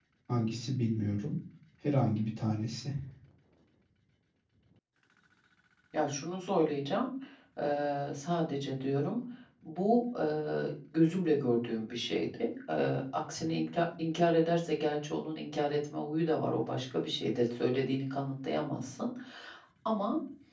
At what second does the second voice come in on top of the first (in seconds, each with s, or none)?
none